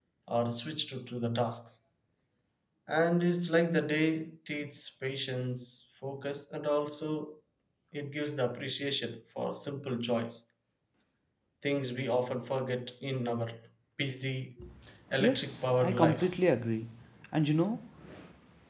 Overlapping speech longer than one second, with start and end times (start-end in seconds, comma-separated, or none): 15.2-16.4